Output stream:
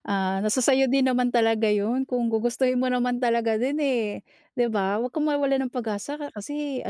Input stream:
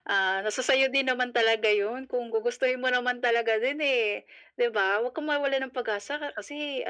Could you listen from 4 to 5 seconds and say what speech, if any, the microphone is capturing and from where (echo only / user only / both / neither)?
echo only